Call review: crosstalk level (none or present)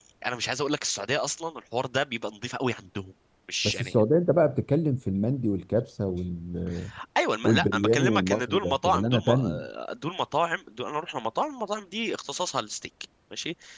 present